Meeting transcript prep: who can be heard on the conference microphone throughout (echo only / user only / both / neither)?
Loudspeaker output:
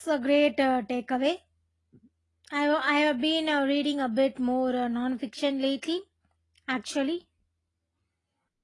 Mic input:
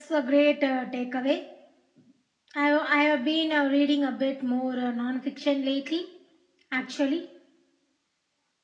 echo only